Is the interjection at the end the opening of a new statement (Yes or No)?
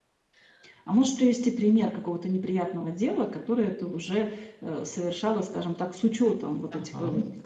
Yes